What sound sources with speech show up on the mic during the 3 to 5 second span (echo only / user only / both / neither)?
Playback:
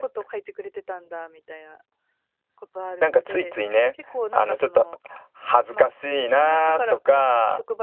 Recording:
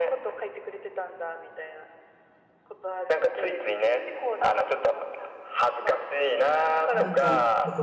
echo only